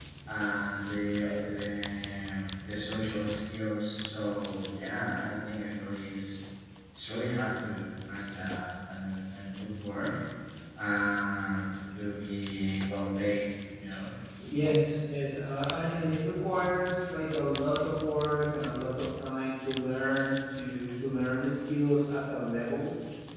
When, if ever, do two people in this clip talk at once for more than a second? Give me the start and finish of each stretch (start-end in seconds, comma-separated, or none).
none